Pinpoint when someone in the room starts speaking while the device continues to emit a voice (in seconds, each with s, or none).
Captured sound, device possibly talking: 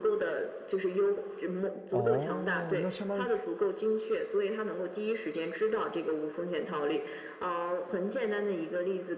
1.9 s